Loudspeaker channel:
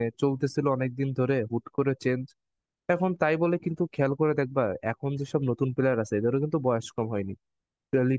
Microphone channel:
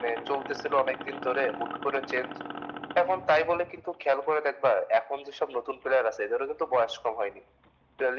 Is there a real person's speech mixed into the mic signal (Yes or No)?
No